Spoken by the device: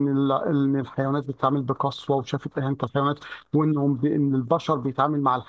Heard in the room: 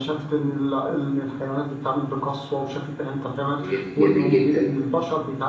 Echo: present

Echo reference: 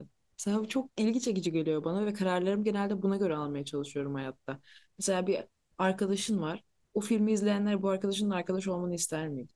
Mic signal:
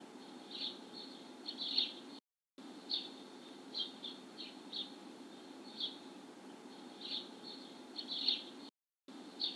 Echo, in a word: none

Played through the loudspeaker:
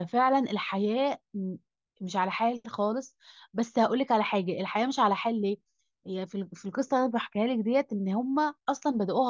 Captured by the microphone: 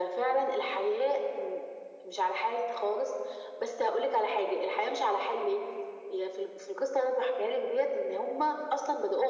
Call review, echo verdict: present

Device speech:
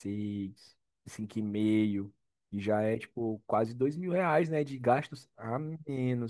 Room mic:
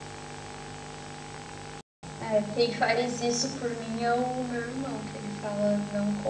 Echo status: none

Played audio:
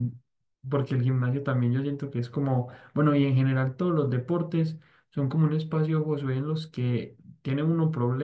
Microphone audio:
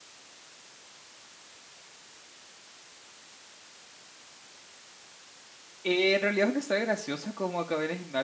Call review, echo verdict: none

